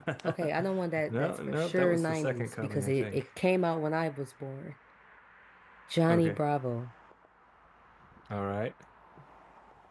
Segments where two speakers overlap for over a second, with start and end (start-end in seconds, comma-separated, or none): 1.1-3.2